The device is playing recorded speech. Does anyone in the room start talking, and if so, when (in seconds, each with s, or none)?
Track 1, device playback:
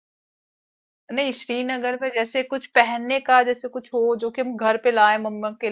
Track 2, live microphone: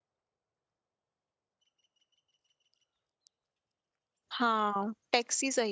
4.3 s